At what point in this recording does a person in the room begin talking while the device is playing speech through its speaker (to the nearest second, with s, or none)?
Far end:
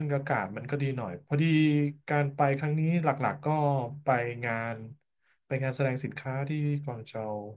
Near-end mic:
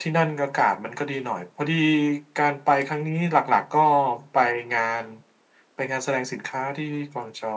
none